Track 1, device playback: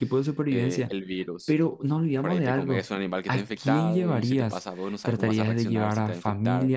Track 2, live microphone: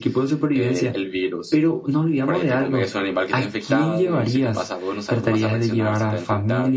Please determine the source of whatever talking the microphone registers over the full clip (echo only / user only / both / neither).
echo only